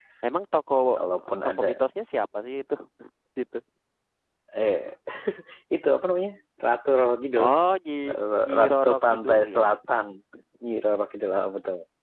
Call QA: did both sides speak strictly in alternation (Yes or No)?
No